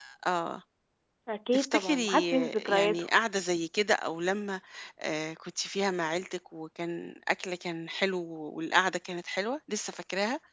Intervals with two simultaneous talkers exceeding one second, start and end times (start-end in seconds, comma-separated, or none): 1.5-3.0